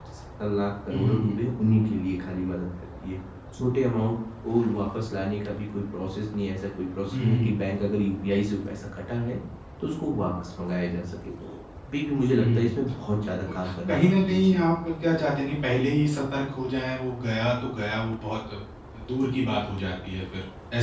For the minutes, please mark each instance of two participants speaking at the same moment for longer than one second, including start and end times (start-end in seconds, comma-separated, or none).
13.2-14.6